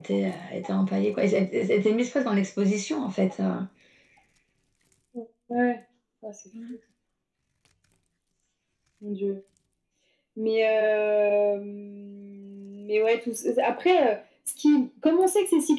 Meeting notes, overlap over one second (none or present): none